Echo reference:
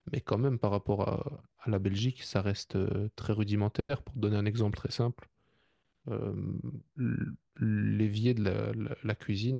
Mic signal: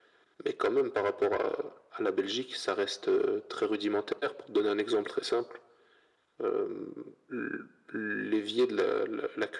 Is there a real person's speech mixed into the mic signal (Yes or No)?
No